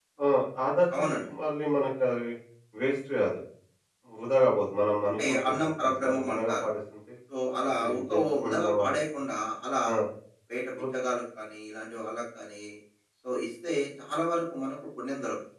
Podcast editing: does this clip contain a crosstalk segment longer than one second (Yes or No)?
Yes